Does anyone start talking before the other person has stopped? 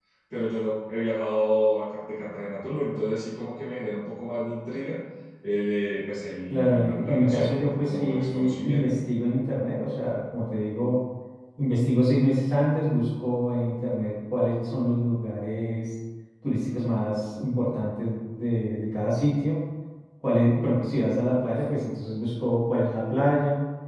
Yes, from 6.5 s

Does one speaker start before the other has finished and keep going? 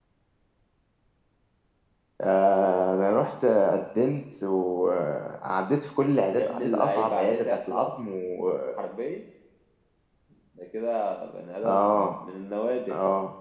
Yes, from 6.3 s

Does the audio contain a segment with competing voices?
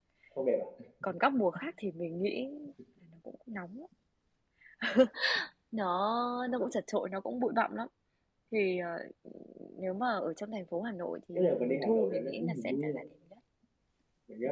Yes, from 11.3 s

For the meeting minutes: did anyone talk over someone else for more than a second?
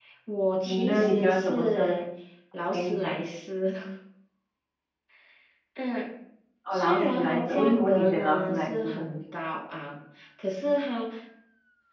Yes, from 0.7 s

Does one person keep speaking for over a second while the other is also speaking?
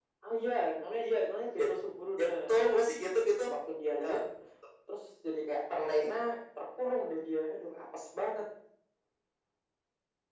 No

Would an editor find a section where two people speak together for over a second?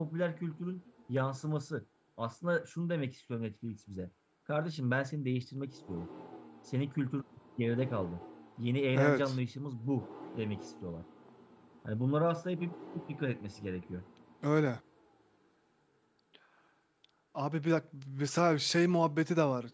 No

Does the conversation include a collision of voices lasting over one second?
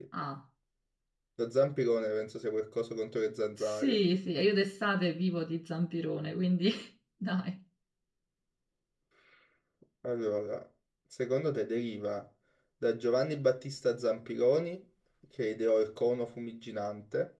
No

